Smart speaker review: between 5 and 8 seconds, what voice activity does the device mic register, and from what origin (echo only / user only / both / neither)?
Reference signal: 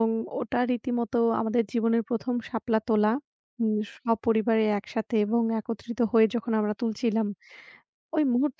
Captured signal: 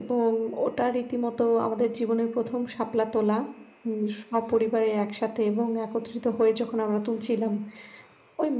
echo only